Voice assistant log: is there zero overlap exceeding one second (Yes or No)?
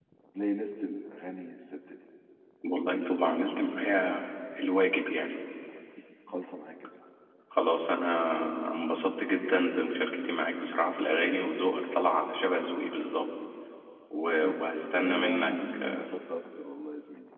No